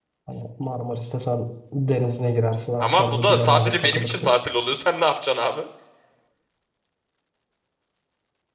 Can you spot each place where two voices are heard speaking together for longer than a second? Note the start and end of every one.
2.8-4.3

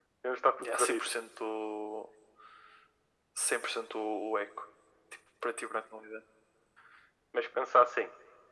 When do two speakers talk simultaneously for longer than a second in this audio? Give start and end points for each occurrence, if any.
none

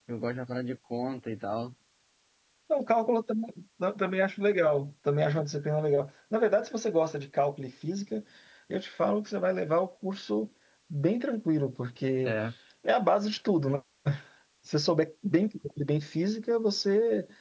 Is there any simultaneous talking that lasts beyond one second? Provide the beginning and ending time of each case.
none

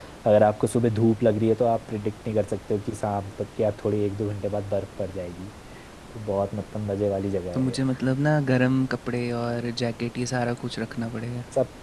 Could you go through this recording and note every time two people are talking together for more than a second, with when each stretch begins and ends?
none

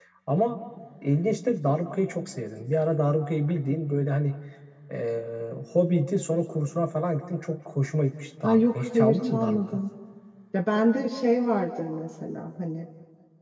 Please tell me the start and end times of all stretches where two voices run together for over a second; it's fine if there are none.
8.4-9.8

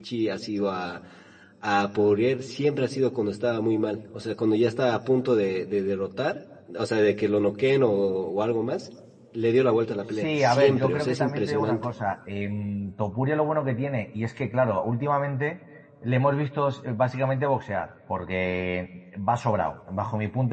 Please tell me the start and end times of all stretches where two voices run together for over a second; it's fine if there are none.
10.2-11.8

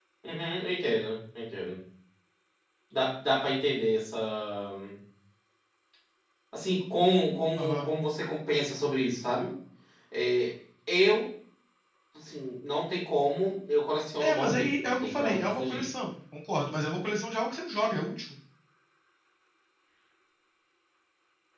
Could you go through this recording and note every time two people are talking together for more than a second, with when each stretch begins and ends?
14.2-15.9

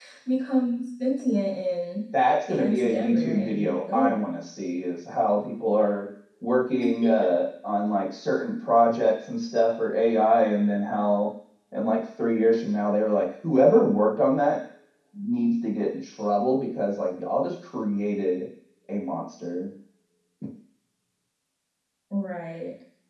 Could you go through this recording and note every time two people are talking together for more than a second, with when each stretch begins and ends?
2.5-4.2

